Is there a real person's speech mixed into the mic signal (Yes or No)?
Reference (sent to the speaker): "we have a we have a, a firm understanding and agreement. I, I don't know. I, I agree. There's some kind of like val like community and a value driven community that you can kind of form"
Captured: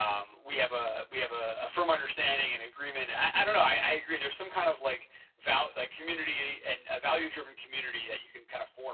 No